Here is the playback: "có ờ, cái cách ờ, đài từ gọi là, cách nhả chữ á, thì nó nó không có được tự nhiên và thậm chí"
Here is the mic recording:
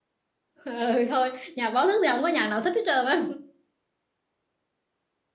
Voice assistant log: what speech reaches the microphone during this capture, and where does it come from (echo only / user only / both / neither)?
user only